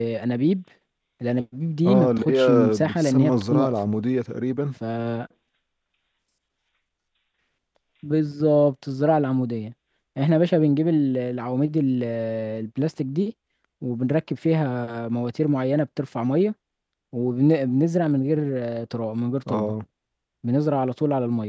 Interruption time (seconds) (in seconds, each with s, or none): 1.8 s